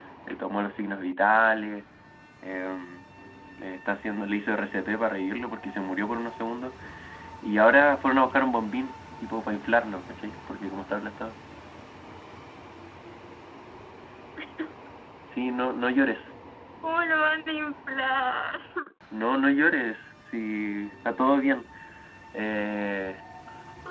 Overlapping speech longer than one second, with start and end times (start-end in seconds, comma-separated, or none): none